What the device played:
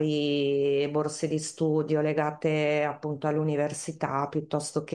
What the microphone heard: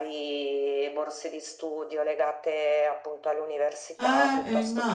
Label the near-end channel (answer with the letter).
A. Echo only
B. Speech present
B